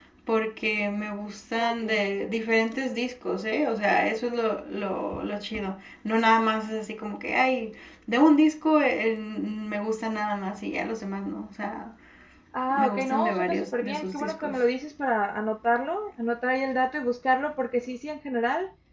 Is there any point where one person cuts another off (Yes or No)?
Yes